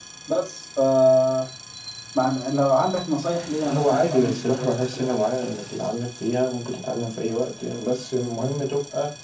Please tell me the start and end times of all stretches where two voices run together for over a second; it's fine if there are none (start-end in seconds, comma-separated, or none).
3.6-5.1